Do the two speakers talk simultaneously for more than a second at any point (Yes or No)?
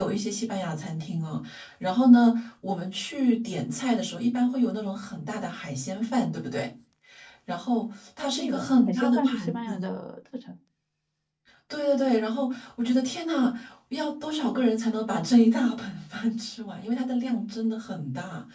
Yes